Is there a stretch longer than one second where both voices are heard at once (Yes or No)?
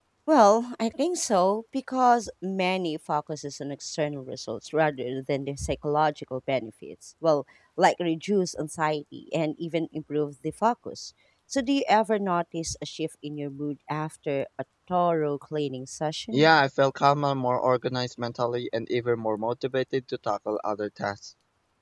No